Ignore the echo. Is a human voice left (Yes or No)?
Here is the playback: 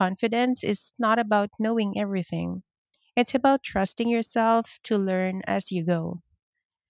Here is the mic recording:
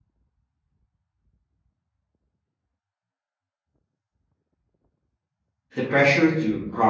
Yes